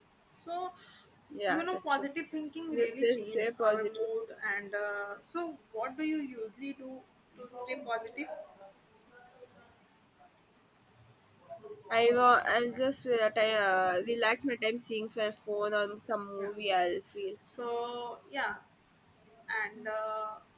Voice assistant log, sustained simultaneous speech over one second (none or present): present